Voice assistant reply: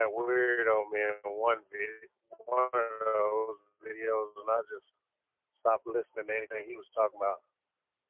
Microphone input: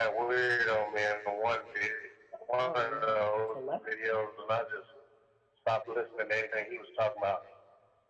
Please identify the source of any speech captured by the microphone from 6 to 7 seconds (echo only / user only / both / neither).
echo only